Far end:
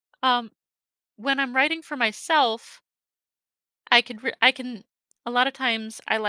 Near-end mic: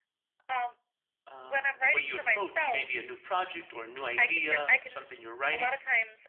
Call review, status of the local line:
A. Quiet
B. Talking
B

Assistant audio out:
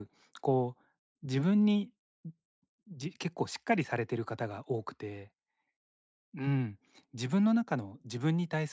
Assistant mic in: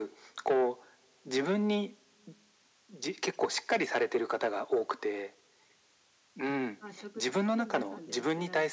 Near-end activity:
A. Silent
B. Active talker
B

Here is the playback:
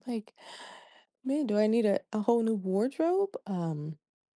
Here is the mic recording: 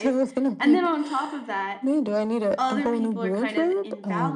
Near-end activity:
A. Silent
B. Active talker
B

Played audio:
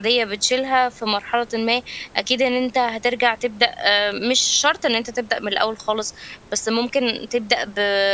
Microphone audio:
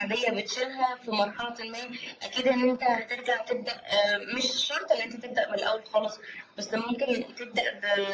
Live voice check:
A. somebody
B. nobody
B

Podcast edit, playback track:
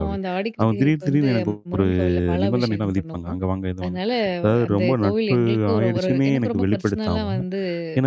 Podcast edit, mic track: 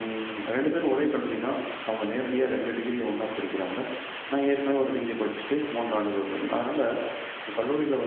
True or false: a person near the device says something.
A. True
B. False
A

